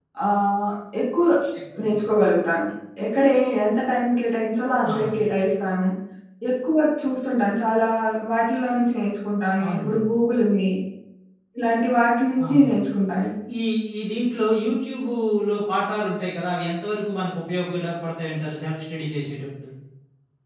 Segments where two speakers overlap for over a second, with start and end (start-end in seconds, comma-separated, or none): none